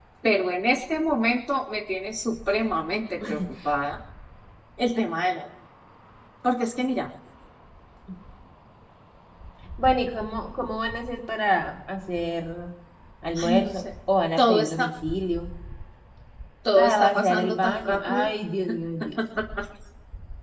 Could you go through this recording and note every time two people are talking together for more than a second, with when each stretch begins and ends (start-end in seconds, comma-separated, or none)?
16.8-18.3